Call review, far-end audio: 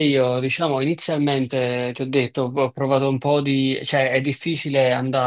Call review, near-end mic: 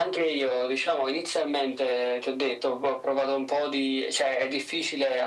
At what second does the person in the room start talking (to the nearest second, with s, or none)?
none